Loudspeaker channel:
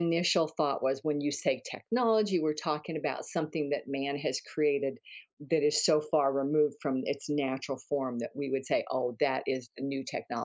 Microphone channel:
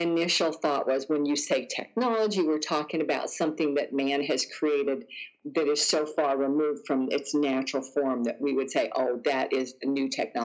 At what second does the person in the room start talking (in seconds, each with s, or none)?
none